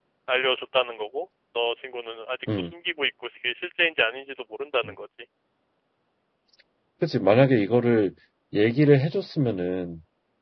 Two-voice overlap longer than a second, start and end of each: none

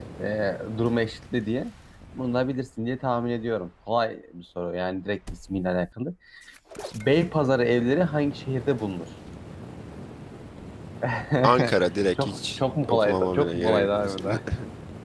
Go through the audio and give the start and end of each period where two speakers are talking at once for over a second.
12.2-14.4

